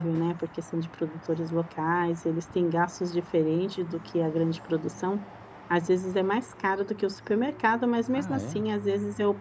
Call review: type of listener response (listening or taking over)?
listening